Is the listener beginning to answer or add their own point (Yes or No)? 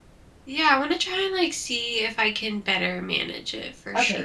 Yes